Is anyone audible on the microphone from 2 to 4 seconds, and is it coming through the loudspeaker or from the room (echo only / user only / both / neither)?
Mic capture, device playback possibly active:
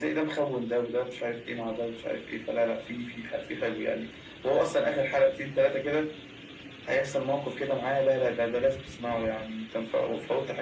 echo only